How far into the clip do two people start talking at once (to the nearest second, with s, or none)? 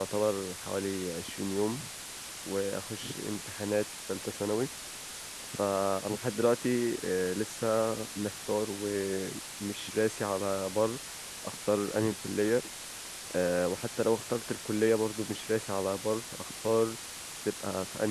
none